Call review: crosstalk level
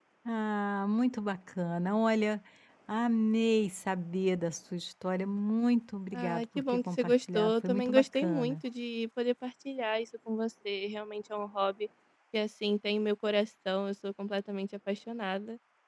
present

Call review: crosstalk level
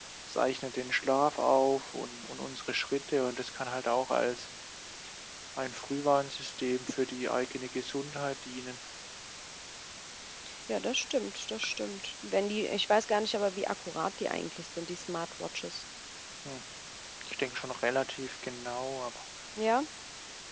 none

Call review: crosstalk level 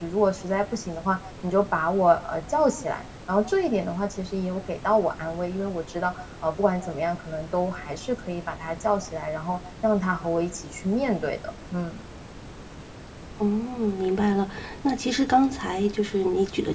none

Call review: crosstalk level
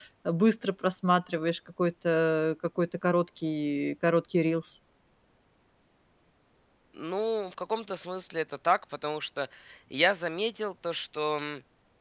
none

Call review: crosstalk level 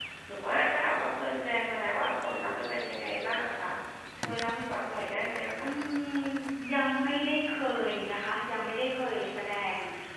none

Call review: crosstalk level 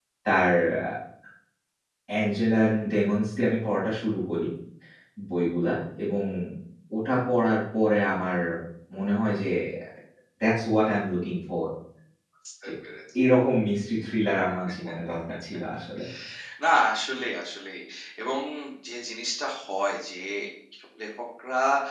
none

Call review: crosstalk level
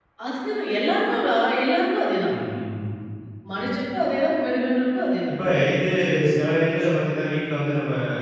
none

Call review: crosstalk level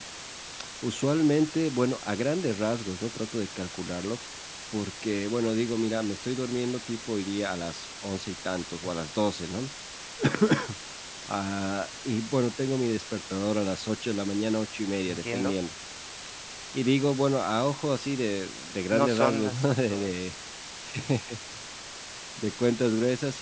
present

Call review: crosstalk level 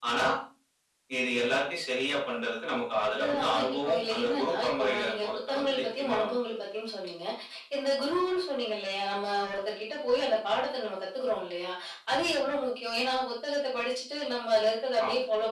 present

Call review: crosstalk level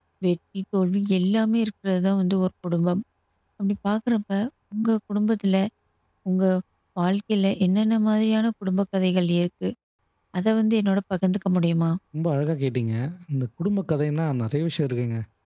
none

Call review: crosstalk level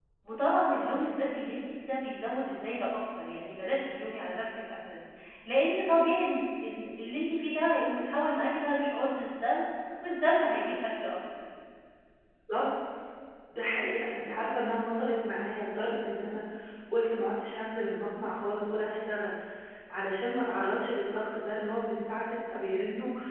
none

